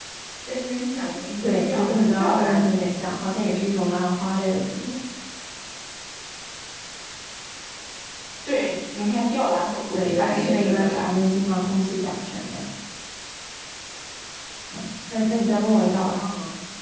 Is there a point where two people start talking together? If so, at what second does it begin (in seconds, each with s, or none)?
1.4 s